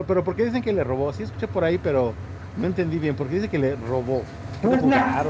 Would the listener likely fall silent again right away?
No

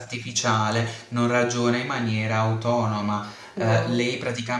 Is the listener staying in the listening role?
Yes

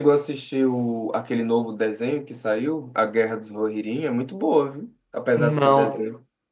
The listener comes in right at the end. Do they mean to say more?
Yes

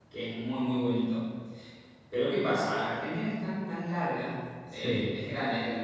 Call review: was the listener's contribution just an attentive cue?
Yes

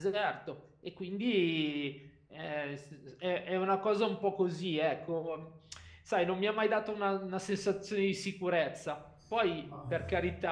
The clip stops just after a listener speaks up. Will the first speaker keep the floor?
Yes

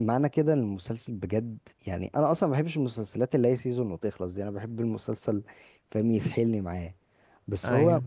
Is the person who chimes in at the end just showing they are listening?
Yes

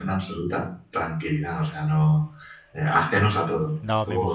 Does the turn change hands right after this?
Yes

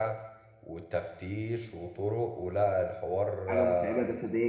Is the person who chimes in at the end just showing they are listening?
No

